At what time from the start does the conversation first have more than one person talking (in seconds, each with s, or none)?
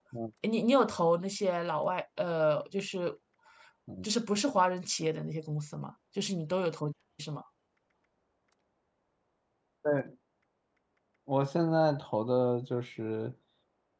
none